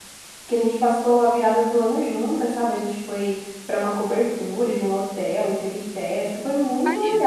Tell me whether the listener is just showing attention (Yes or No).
Yes